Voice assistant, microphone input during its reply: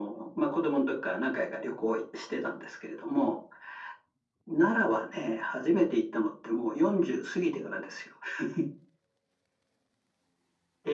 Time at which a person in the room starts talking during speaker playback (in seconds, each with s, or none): none